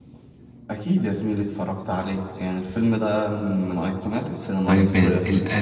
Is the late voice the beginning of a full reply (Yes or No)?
Yes